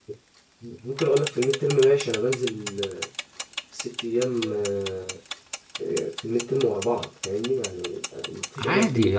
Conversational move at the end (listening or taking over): taking over